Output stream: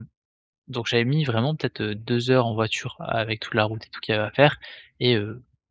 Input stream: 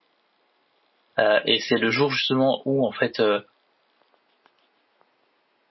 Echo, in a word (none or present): none